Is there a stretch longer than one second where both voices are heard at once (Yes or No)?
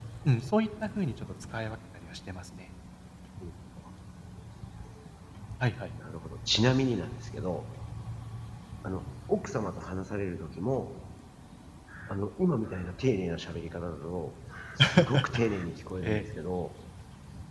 No